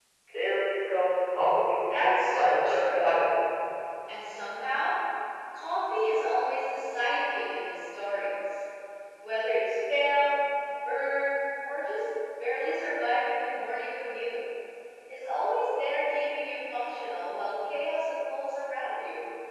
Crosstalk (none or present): present